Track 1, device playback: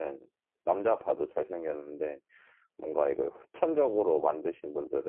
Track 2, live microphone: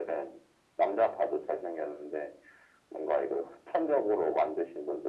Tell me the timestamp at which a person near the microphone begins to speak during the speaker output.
none

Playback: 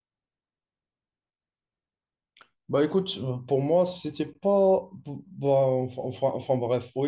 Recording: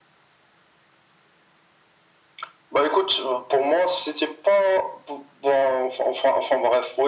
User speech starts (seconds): none

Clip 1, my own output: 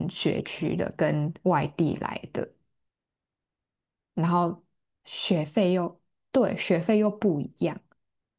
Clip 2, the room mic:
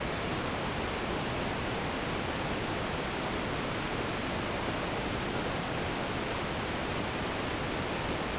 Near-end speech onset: none

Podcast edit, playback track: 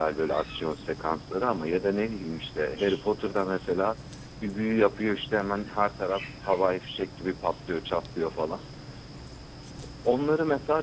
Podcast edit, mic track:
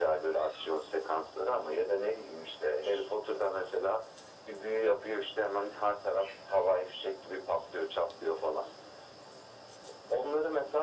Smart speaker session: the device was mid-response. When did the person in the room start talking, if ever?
none

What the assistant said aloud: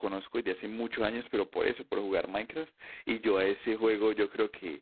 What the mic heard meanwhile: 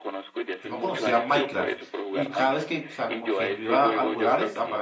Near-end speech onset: 0.6 s

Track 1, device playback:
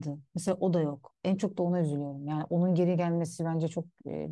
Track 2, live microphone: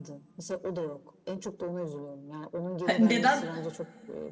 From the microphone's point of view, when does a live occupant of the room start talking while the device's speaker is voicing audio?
2.8 s

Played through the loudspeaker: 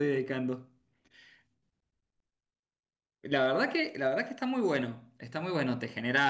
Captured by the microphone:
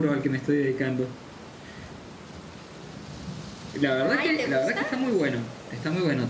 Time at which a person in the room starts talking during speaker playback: 4.0 s

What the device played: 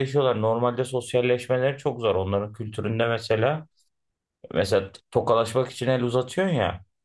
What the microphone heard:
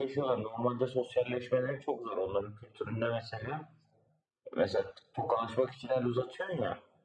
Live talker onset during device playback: none

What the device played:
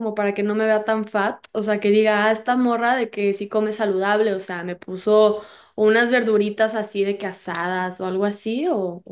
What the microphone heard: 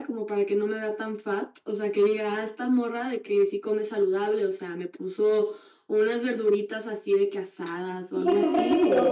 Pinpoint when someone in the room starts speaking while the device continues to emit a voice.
8.1 s

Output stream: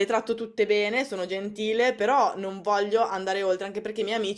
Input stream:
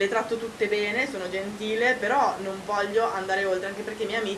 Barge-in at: none

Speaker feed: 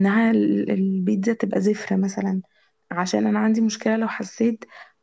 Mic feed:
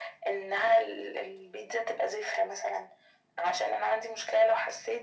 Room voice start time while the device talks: none

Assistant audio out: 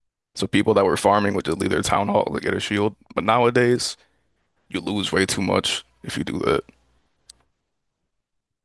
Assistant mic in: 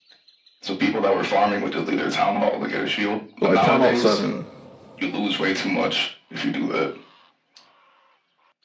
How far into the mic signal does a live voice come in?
3.4 s

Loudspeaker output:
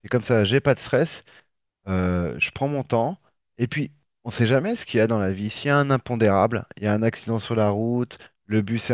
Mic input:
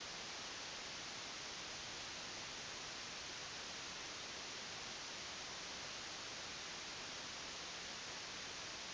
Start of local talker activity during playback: none

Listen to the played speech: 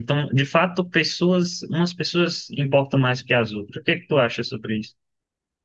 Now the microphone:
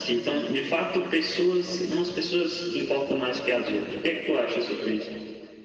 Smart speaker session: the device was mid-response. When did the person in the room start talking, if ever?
none

